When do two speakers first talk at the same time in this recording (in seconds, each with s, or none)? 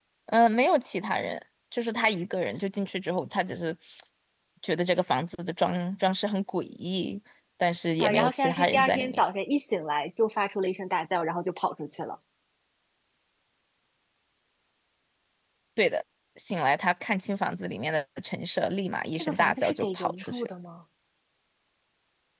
8.0 s